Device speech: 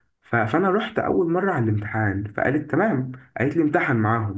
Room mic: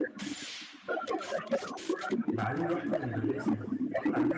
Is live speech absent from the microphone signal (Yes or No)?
No